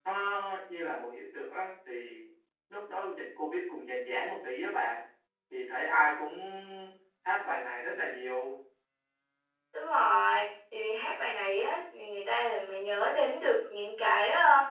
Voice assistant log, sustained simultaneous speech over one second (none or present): none